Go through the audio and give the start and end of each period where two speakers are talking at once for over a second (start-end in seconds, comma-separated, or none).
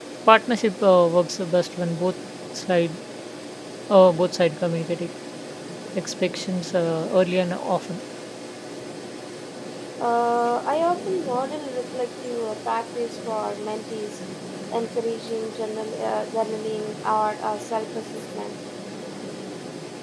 none